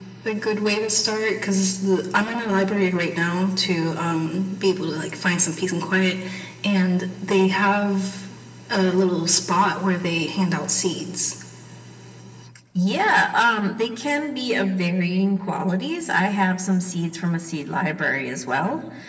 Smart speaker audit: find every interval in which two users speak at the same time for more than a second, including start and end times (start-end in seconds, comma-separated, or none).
none